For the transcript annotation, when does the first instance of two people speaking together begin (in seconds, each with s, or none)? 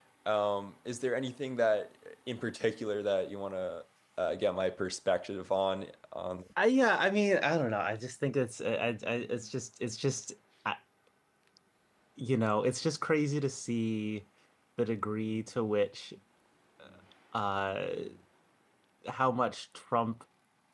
none